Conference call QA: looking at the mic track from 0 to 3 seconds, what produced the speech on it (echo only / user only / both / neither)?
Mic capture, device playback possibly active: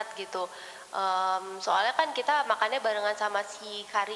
echo only